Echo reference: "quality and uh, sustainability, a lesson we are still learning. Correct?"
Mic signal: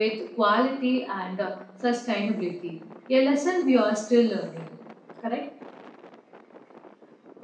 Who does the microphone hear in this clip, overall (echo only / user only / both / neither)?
echo only